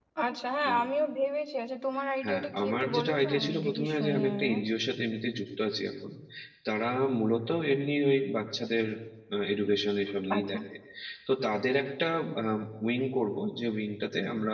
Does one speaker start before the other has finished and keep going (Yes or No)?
Yes